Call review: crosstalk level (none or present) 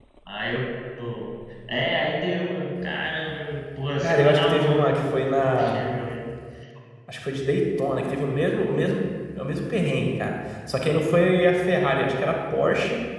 present